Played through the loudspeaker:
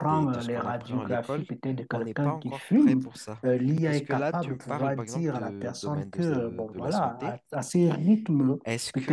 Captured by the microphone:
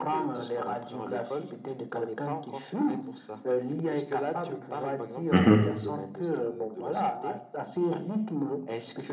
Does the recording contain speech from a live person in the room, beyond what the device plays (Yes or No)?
Yes